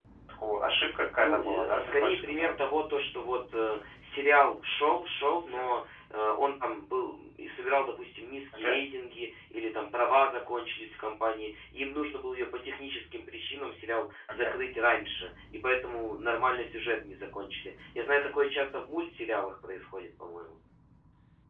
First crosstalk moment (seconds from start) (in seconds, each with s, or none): 1.2 s